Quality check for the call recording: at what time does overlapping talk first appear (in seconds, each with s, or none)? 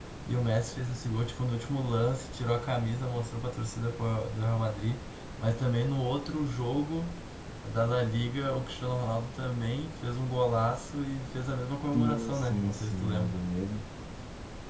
11.9 s